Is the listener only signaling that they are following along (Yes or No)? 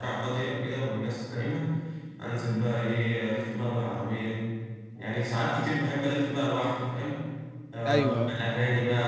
Yes